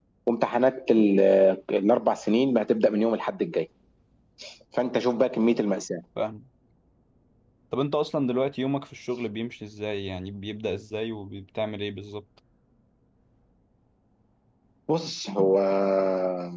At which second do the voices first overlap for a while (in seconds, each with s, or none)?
none